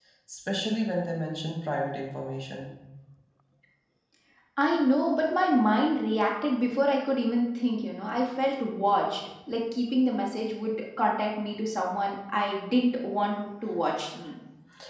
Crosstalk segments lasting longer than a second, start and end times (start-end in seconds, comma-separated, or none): none